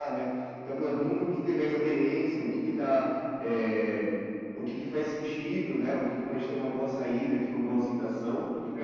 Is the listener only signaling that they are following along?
No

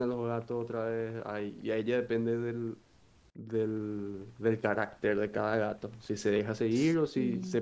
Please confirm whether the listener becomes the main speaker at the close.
No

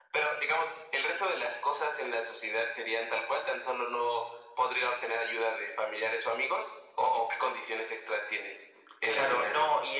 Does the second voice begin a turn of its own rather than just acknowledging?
Yes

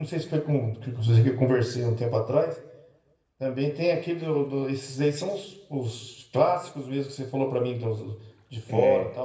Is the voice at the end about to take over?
No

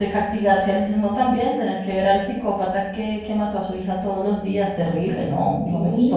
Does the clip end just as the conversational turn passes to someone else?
Yes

